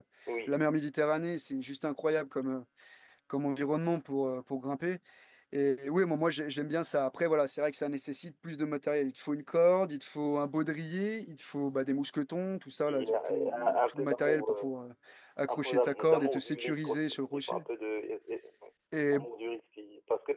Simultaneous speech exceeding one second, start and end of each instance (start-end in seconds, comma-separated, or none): 12.8-14.6, 15.5-17.6